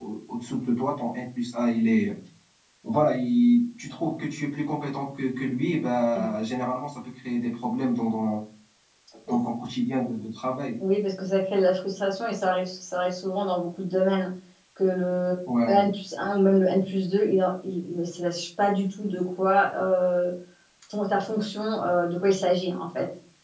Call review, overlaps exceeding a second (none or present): none